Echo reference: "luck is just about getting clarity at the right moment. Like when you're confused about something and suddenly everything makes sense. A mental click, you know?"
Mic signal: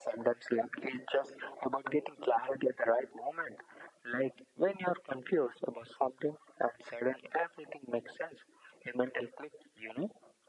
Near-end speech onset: none

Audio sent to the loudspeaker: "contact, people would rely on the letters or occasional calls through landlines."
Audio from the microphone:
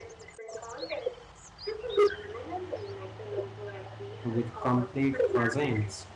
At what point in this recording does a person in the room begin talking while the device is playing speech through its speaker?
4 s

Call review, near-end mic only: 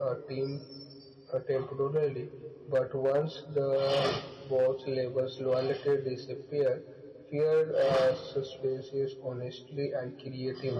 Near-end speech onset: none

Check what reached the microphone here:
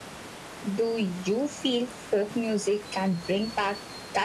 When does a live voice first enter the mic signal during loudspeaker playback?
none

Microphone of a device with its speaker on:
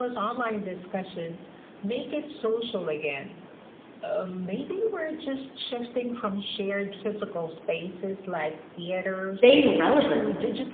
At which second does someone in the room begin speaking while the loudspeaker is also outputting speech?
9 s

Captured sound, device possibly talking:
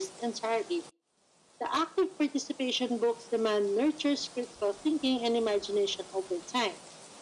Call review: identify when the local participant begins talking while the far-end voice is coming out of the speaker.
none

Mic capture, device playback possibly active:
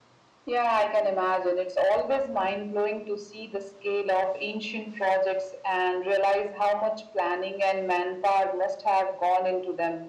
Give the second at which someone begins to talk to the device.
none

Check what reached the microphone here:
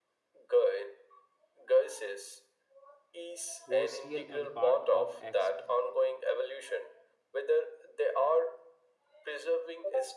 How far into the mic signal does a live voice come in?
4 s

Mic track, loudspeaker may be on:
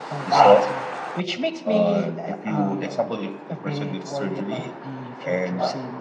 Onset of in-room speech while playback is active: none

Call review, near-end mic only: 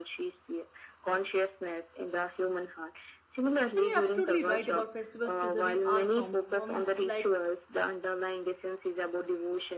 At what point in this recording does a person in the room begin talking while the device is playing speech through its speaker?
4 s

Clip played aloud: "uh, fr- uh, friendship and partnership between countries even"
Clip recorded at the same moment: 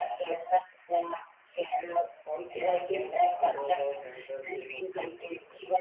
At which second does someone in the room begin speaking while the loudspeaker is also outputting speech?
2 s

